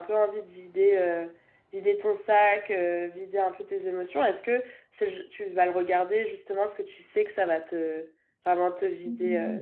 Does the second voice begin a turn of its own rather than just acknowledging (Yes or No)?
Yes